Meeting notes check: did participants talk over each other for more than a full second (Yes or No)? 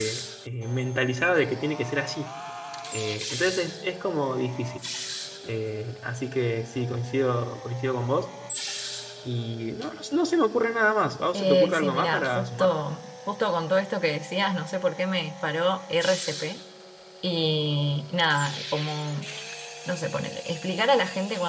Yes